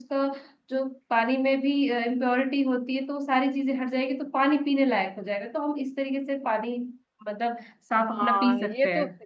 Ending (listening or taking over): taking over